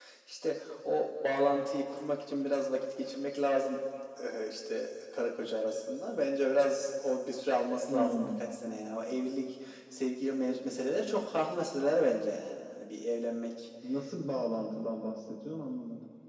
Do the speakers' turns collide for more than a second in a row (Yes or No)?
No